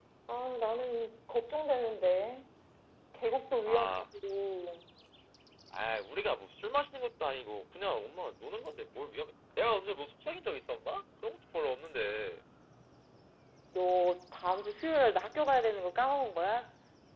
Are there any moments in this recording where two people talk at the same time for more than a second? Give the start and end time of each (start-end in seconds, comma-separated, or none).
none